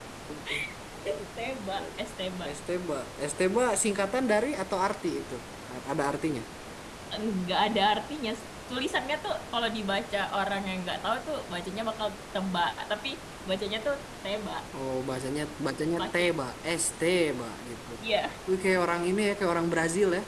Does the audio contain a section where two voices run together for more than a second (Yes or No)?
No